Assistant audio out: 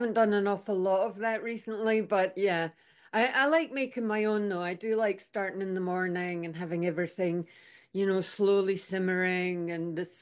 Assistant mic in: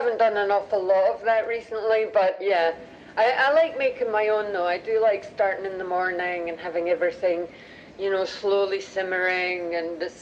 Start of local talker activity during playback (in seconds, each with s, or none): none